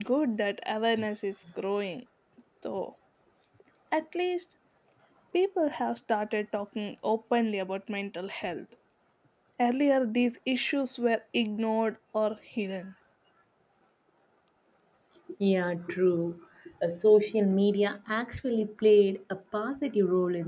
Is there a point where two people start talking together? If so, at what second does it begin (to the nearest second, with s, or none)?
none